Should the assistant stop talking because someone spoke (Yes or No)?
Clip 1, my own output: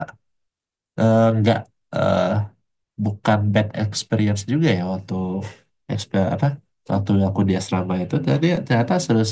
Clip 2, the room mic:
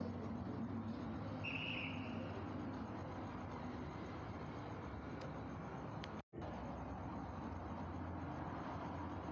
No